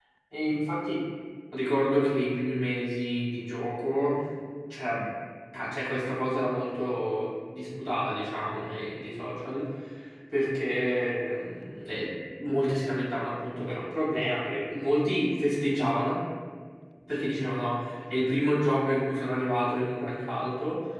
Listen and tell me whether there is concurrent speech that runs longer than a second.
No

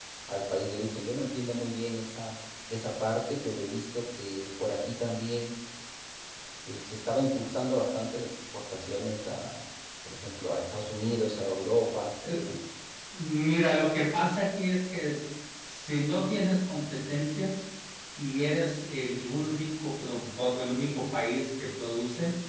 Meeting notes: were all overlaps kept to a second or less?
Yes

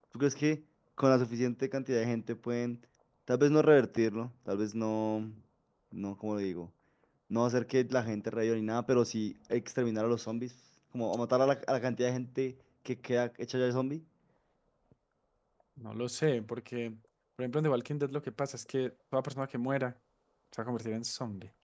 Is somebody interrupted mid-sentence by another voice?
No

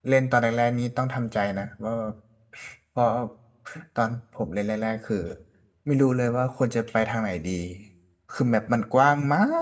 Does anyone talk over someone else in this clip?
No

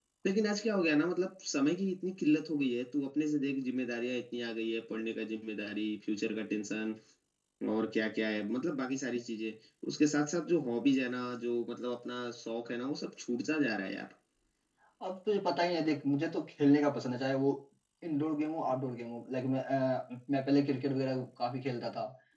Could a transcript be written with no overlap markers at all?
Yes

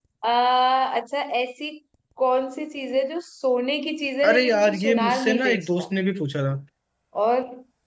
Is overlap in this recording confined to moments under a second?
No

